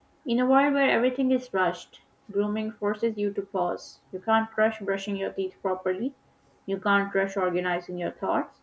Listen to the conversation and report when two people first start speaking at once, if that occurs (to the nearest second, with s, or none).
none